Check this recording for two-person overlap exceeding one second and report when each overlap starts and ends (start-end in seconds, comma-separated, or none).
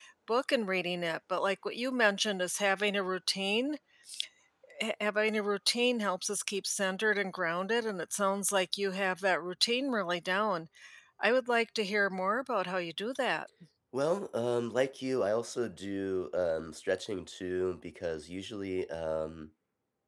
none